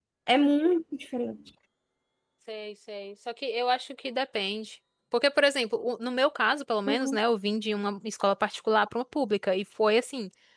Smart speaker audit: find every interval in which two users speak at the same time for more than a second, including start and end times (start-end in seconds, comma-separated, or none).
none